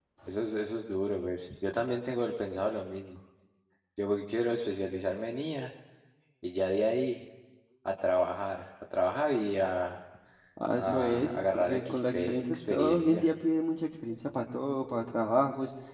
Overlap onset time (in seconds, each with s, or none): 10.7 s